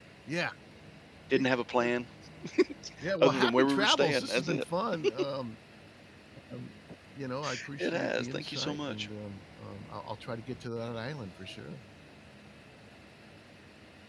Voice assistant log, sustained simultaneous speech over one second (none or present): present